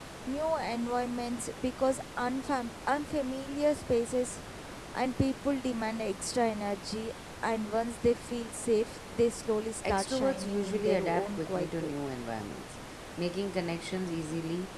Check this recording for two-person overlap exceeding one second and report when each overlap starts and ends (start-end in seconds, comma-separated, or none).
9.9-11.9